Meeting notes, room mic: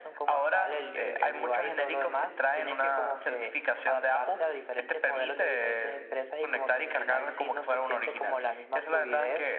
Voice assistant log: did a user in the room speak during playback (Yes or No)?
Yes